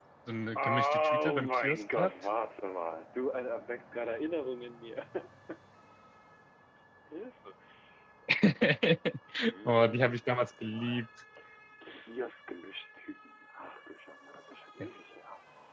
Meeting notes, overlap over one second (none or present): present